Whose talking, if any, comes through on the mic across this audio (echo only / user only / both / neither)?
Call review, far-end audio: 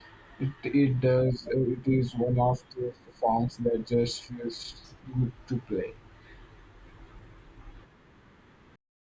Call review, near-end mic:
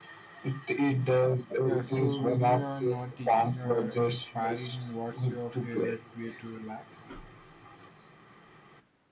both